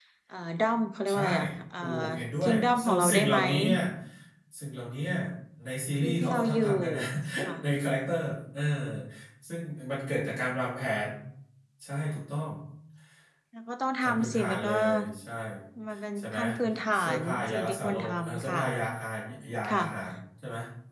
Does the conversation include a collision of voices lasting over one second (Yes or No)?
Yes